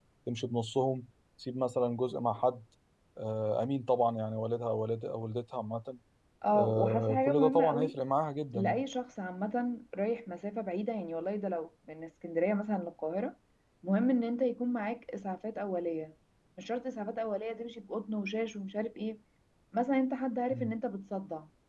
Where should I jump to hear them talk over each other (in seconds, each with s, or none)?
6.6 s